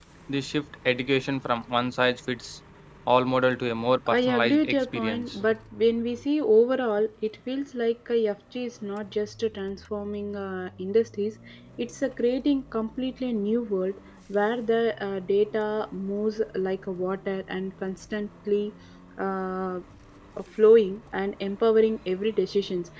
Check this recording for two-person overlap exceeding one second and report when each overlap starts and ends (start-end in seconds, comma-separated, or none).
4.1-5.4